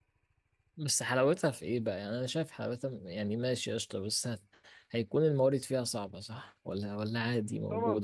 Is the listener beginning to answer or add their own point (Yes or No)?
Yes